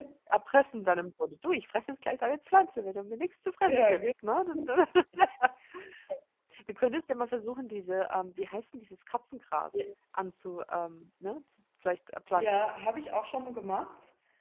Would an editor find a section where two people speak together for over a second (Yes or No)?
No